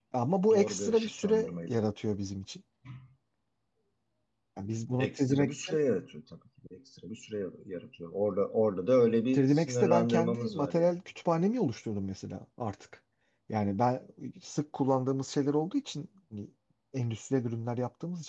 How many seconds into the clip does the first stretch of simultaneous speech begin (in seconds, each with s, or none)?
0.5 s